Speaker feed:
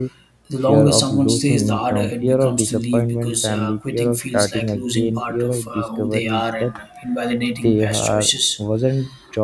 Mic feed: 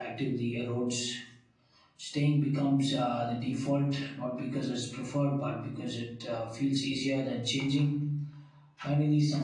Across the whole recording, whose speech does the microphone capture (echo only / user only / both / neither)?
user only